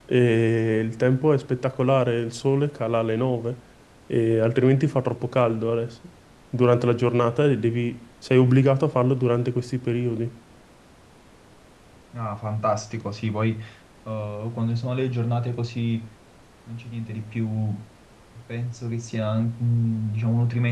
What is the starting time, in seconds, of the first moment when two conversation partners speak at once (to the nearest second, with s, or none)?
none